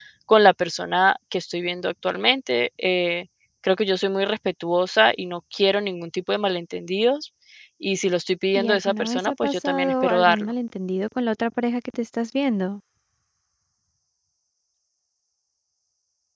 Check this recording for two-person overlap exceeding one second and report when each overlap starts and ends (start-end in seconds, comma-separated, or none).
8.6-10.5